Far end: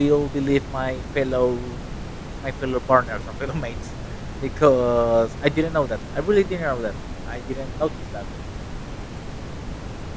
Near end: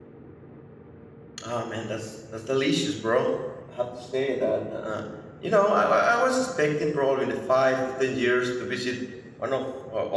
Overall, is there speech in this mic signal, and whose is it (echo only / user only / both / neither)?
user only